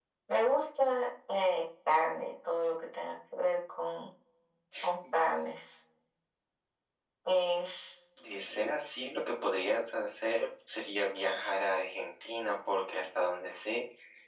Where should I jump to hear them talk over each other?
none

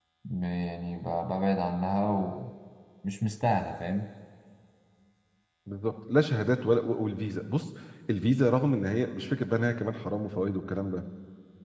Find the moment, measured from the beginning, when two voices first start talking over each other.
none

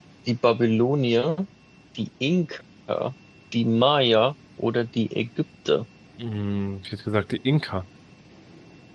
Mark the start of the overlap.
none

